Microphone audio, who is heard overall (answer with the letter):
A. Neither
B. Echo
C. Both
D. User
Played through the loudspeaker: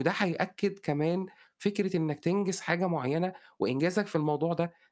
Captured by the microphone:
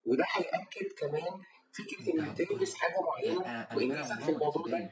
C